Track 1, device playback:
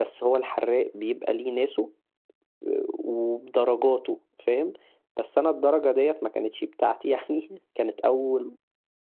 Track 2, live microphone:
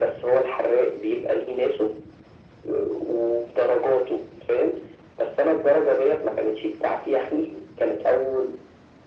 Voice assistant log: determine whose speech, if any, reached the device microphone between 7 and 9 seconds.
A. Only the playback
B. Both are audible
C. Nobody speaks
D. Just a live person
A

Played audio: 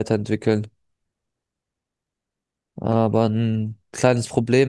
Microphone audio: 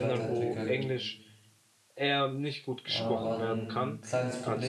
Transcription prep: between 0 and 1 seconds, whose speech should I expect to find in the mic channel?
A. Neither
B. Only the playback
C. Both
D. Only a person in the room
C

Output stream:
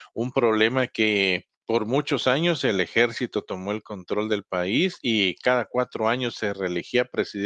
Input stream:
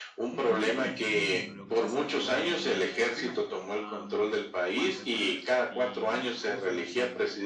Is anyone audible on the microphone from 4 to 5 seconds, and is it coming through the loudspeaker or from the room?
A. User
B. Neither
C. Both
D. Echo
C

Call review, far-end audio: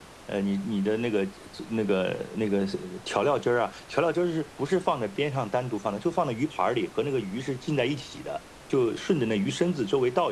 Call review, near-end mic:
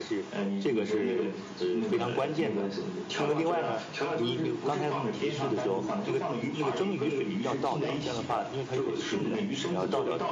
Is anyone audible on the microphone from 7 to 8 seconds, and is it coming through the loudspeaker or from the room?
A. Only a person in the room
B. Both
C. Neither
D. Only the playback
B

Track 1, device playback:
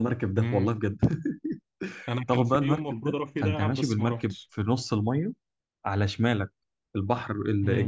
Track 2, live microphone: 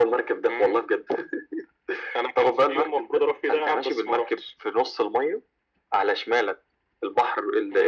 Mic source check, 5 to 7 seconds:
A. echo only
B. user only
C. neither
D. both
A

